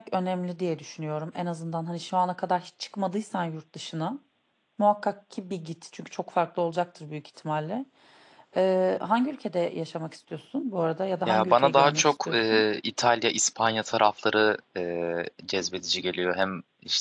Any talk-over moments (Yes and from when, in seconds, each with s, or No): Yes, from 11.2 s